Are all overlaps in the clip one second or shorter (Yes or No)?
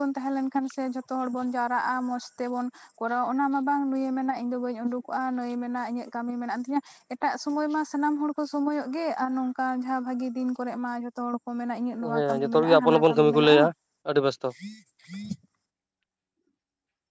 No